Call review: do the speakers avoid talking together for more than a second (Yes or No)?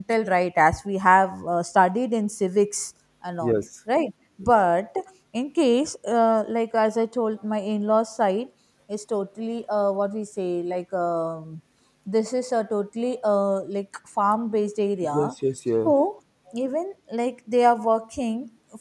Yes